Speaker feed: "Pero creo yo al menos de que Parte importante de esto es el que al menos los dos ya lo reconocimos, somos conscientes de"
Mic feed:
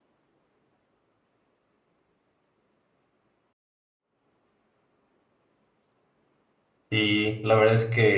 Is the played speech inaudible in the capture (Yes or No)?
Yes